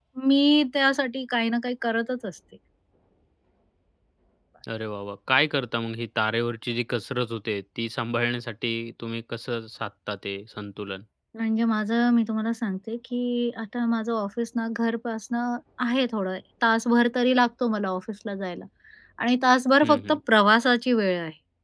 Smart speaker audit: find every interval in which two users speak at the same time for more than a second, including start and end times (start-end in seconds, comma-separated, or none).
none